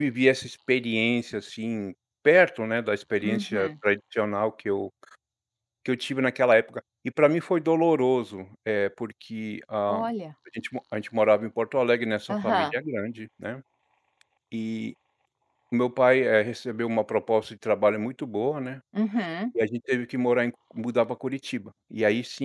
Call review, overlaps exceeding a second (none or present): none